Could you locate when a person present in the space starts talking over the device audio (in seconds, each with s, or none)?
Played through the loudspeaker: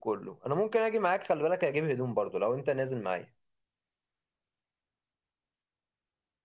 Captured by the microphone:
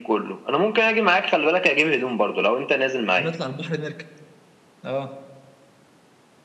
3.1 s